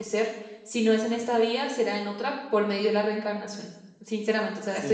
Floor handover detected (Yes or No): No